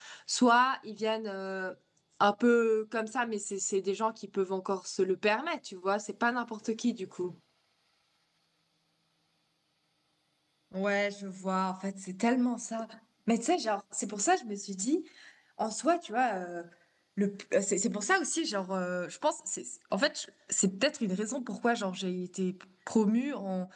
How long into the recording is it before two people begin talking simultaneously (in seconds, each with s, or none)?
none